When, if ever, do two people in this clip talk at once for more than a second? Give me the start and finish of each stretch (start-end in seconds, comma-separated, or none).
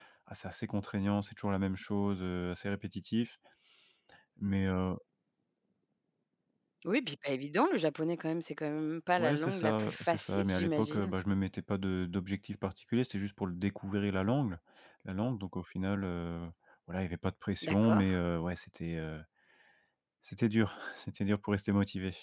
9.2-11.1